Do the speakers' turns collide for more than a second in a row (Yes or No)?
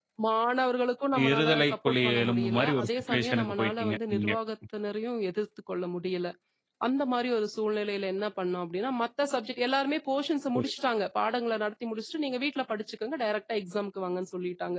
Yes